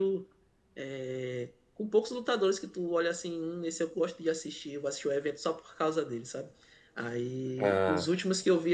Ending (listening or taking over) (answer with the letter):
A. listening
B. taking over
A